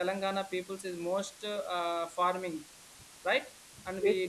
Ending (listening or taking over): taking over